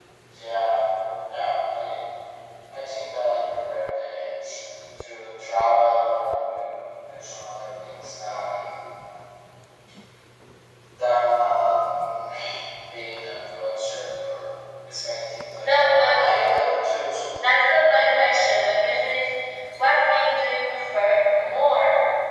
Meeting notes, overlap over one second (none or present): none